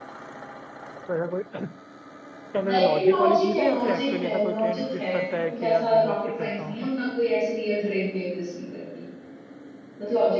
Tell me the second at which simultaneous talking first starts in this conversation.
2.7 s

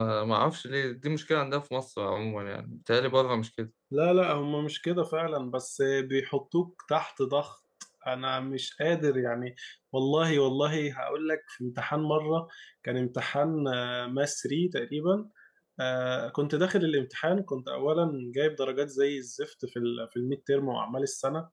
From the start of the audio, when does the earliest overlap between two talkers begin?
none

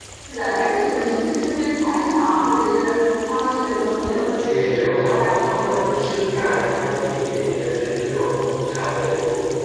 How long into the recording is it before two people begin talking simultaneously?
4.9 s

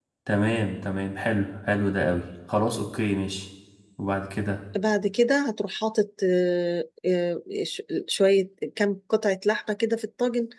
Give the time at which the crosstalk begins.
none

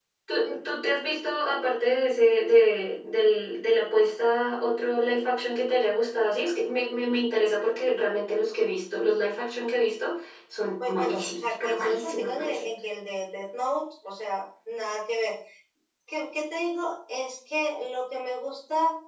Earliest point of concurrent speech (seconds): 10.8 s

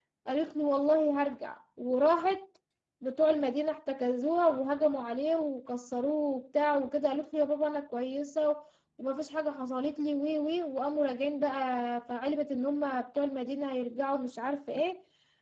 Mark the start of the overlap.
none

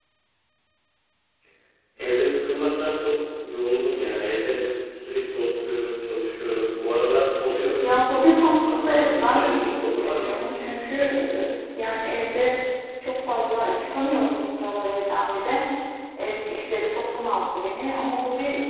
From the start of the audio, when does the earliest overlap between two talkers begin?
7.8 s

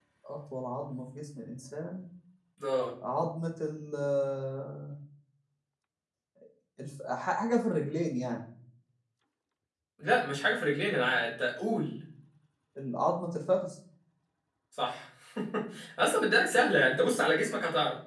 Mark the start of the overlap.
none

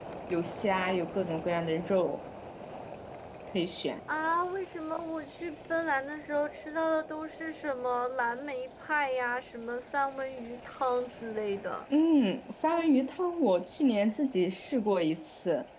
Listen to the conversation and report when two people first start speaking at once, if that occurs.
none

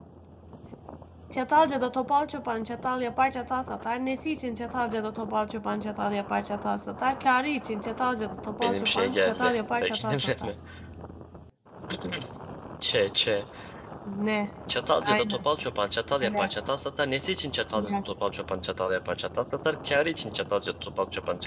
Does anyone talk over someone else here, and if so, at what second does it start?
8.6 s

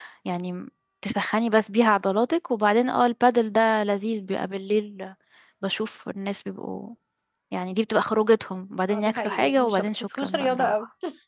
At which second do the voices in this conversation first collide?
8.9 s

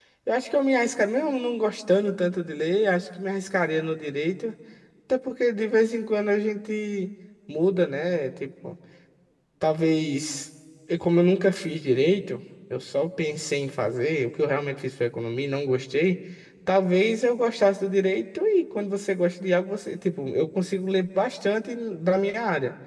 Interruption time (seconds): none

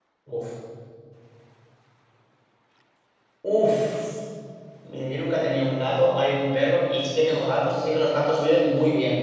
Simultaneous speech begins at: none

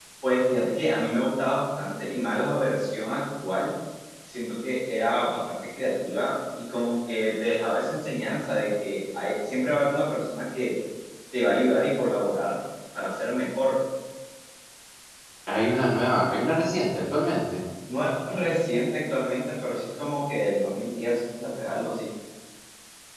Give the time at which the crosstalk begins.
none

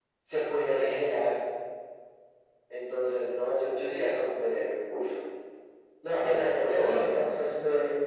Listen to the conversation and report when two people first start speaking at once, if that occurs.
6.2 s

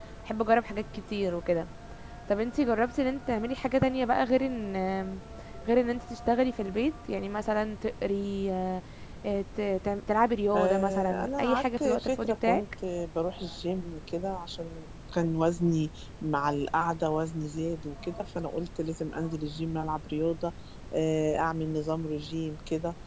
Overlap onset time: 10.5 s

